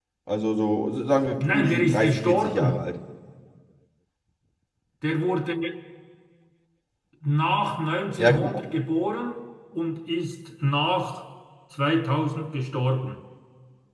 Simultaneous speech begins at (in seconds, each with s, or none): 1.4 s